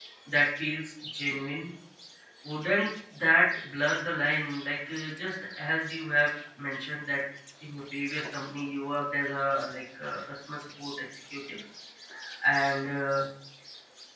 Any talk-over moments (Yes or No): No